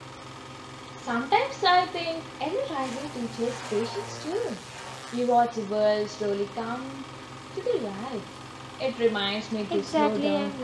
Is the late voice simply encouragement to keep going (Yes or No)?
No